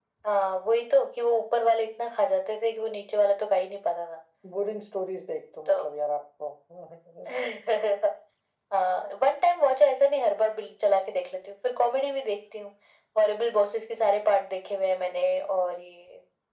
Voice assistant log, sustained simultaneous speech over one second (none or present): none